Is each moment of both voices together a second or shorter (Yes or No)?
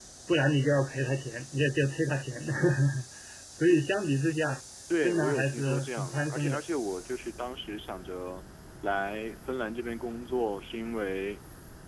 No